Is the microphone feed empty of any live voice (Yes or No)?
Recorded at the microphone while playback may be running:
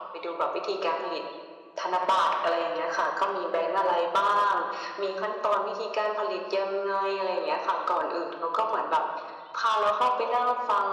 Yes